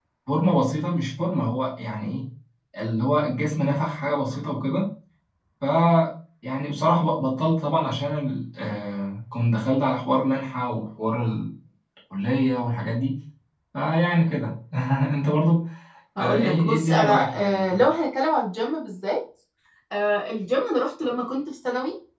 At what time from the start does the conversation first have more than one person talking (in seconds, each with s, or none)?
16.2 s